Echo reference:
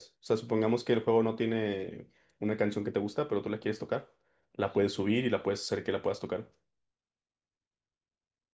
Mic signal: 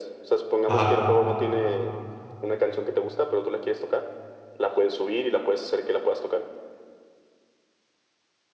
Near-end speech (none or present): present